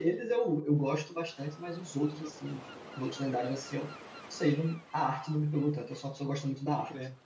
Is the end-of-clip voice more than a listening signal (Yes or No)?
Yes